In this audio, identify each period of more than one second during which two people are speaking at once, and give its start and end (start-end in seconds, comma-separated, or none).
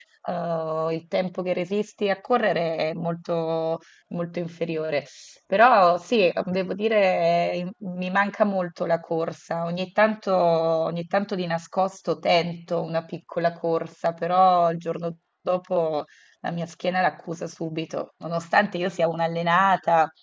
none